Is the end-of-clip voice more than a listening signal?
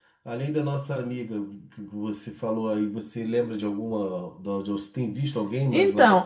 Yes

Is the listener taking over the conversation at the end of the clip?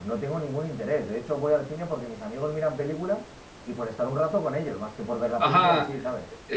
Yes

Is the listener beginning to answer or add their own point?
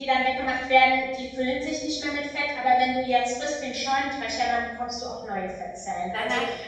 No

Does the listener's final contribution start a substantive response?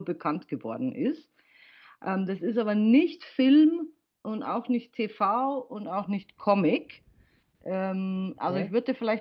No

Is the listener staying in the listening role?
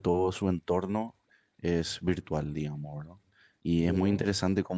Yes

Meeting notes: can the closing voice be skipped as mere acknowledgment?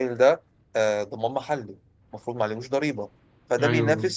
Yes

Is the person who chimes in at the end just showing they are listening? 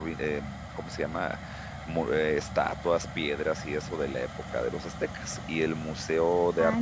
Yes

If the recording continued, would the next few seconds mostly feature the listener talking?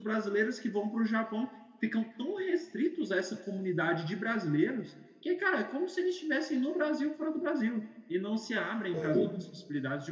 No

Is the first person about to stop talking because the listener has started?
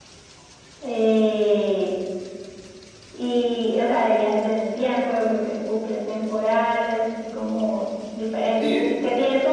No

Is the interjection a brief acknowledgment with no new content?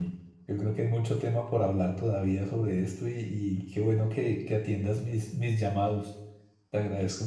Yes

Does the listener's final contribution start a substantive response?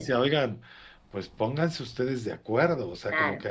No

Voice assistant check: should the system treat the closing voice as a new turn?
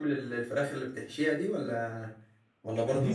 Yes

